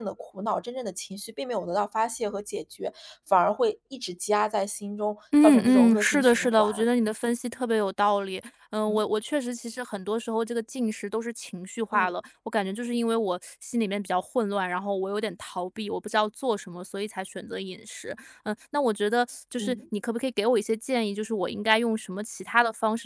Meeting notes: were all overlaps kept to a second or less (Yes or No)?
No